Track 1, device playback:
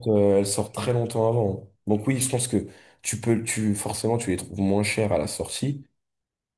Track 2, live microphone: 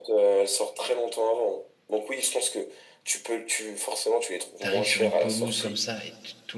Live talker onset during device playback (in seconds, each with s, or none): 4.6 s